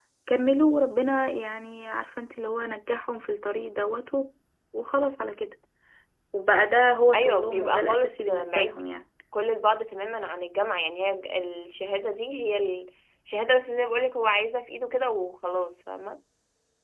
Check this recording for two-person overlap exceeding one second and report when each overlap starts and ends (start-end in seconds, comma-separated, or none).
7.1-8.8